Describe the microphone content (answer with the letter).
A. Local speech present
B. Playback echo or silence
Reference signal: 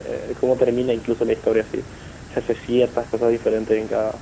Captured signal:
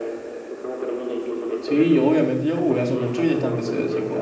A